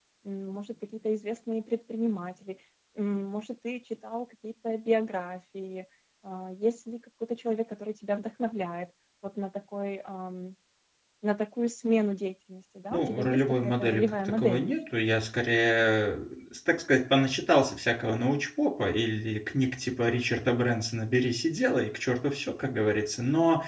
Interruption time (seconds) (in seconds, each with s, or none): 12.9 s